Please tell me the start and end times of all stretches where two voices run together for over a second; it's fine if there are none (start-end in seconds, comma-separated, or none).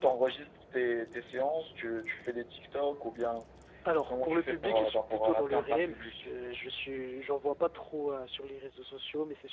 4.1-6.1